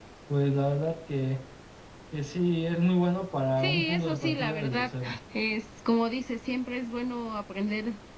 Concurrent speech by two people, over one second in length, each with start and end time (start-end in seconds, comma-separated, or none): 3.6-4.9